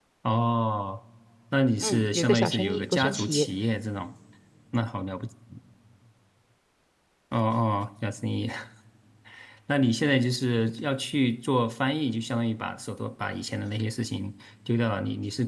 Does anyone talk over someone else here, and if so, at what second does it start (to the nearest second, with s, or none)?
2 s